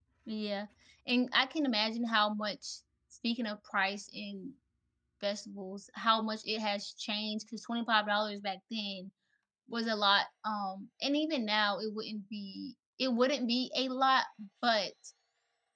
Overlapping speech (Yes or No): No